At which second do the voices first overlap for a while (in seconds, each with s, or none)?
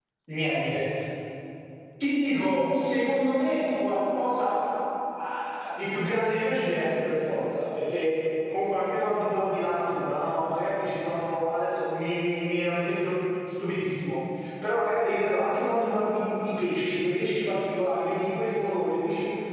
none